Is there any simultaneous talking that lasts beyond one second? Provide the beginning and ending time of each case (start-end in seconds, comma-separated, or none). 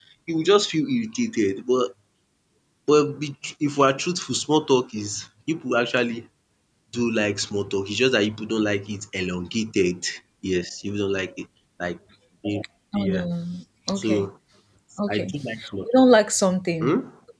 none